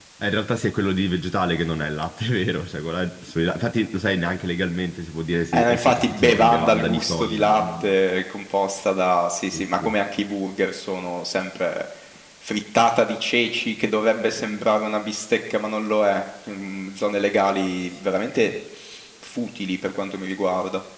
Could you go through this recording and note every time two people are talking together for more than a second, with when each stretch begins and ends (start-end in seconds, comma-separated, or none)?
5.5-7.9